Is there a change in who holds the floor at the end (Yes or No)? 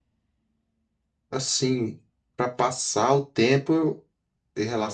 No